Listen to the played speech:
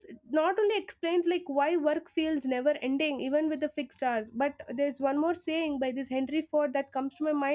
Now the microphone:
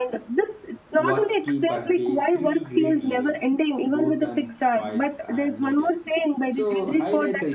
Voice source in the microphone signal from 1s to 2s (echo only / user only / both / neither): both